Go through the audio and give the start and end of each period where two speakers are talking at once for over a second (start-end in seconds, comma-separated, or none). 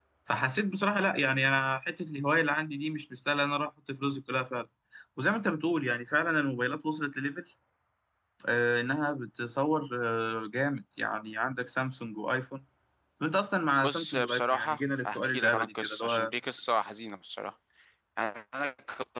13.8-16.3